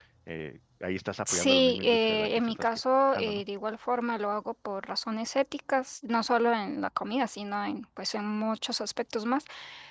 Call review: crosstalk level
present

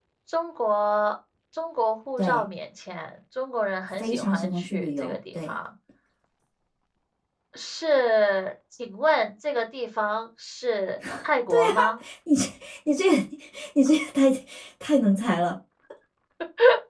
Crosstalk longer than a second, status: present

